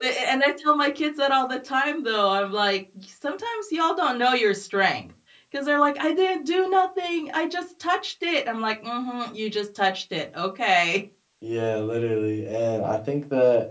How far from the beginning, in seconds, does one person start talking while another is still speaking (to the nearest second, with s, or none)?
none